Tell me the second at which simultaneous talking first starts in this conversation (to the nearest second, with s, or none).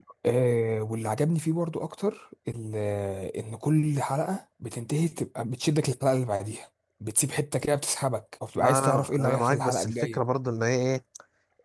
9 s